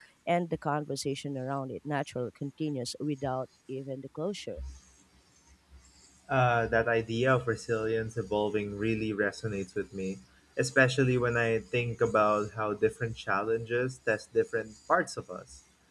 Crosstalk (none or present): none